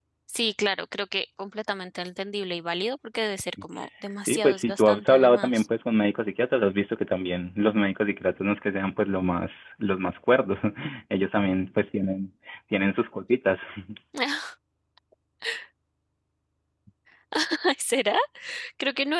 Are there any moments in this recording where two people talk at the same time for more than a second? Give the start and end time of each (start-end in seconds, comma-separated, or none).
4.3-5.6